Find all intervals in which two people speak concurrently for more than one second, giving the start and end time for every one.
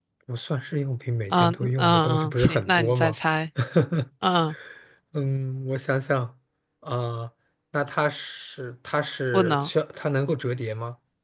1.3-3.1

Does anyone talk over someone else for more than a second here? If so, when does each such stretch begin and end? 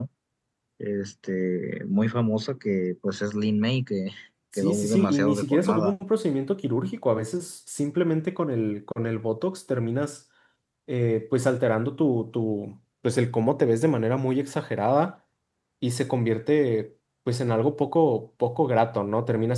4.6-5.9

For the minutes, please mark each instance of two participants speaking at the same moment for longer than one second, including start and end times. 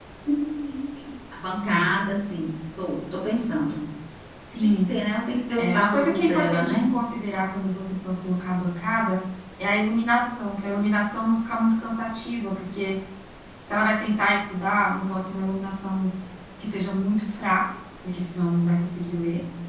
5.6-6.8

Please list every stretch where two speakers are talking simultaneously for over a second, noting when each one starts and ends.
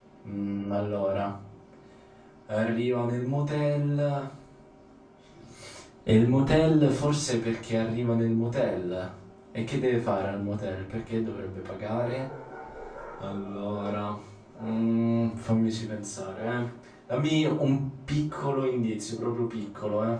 none

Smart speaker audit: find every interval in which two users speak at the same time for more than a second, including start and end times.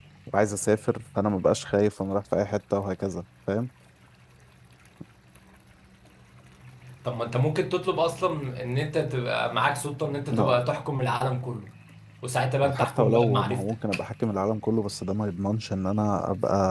12.7-14.0

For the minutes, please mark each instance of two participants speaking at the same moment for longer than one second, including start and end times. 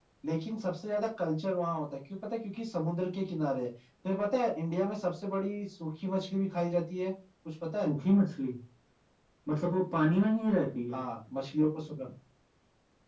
none

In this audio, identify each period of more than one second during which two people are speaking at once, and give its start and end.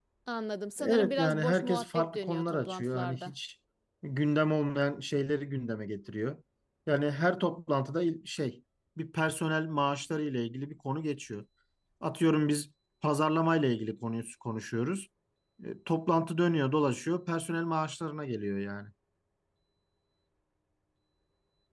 0.8-3.3

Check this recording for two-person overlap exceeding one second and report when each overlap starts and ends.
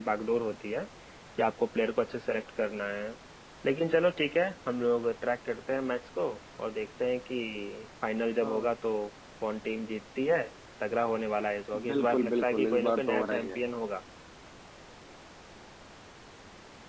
11.9-13.6

